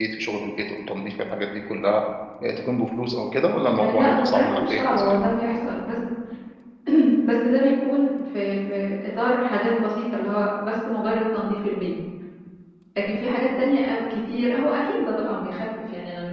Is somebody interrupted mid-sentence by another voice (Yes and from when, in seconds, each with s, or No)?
Yes, from 3.8 s